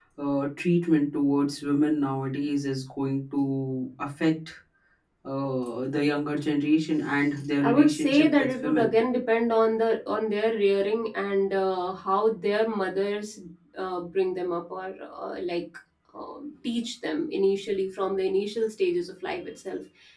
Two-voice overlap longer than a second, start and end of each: 7.6-9.0

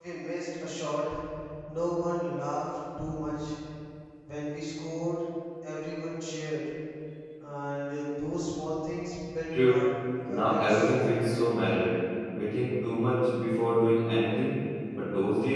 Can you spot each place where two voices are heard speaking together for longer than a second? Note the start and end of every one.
10.3-11.6

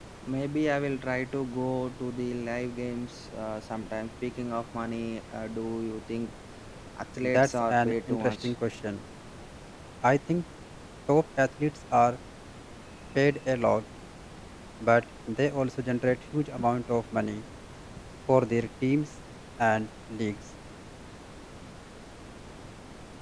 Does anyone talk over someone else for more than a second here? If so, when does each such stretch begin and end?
7.2-8.5

